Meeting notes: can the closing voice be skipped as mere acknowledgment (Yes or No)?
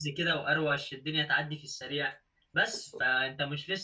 Yes